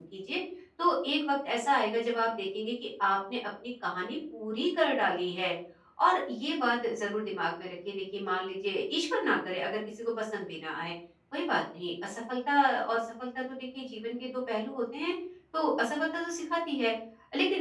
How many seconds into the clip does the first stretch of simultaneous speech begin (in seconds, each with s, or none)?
none